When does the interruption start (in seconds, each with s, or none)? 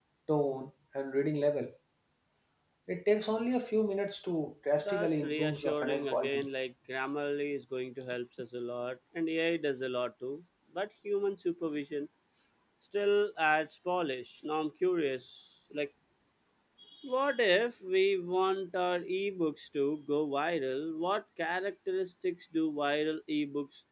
4.8 s